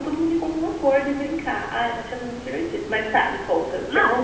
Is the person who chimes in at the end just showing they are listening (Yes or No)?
No